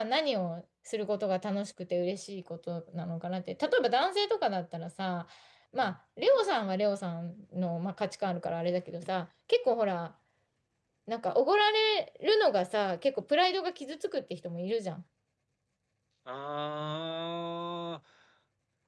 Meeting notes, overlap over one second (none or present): none